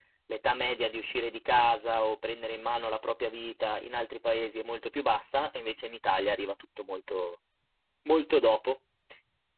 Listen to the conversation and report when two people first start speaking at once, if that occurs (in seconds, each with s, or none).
none